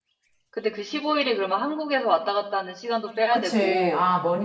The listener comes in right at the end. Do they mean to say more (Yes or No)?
Yes